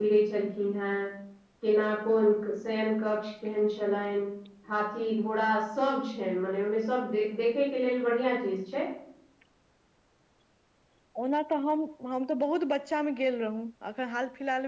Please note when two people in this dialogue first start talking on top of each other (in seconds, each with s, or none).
none